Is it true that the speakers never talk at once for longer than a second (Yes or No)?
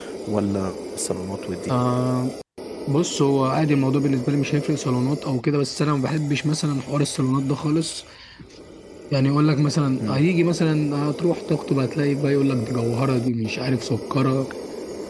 Yes